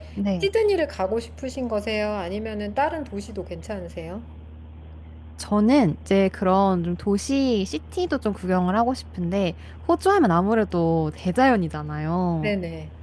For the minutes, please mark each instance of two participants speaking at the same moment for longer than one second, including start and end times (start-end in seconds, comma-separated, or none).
none